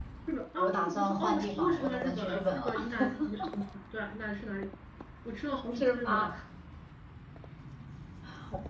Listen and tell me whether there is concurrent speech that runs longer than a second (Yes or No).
Yes